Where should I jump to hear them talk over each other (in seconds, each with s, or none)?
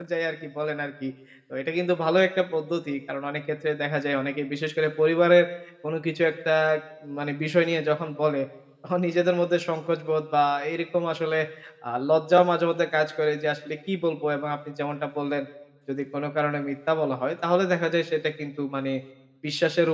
none